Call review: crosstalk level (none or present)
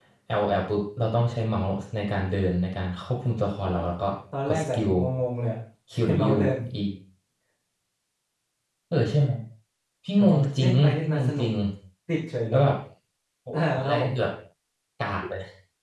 present